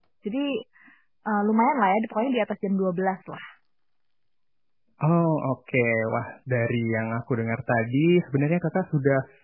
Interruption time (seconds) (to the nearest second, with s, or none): none